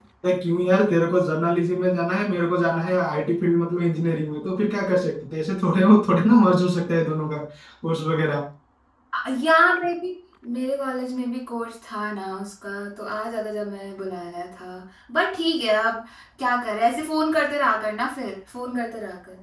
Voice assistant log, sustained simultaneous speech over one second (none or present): none